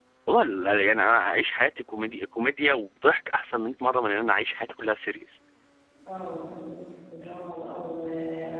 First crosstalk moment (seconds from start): none

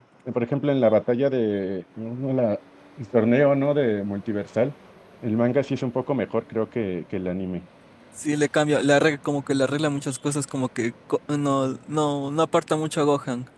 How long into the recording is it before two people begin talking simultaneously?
none

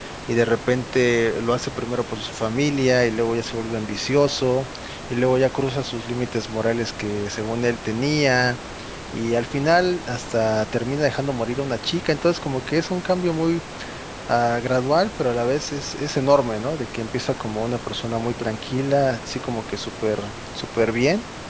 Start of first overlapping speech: none

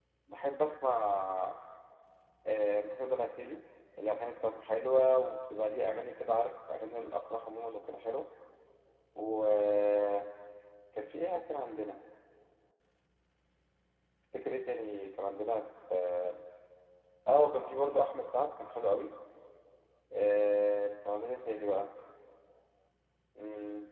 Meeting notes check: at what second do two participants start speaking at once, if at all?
none

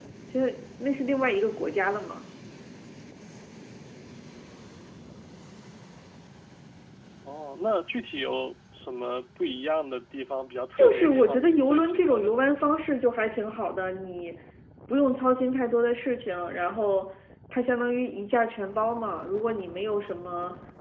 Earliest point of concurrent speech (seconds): 10.8 s

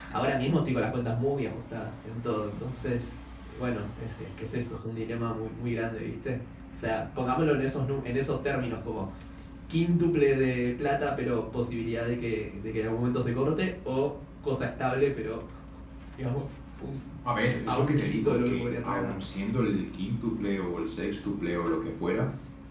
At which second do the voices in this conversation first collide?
17.7 s

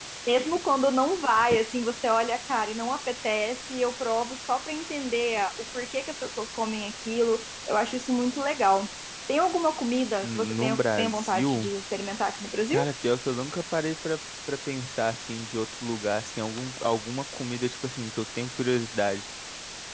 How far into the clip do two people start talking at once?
10.2 s

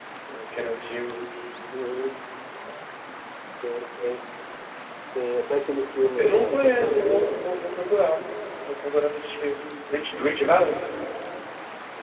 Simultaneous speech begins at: 6.2 s

